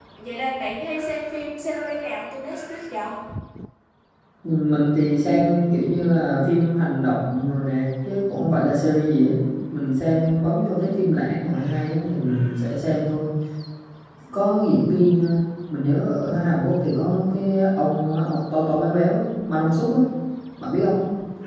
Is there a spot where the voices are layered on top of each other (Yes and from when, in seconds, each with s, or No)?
No